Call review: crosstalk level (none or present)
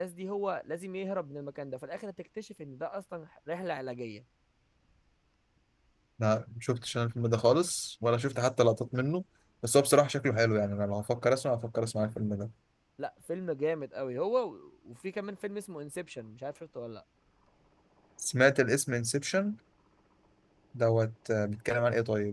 none